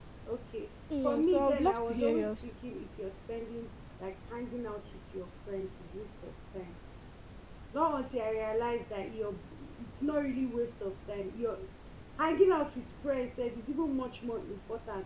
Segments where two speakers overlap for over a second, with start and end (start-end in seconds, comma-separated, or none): 1.0-2.5